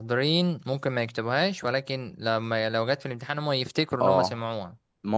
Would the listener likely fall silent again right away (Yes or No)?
No